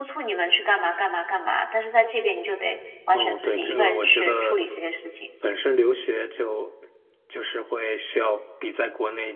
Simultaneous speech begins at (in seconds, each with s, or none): 3.1 s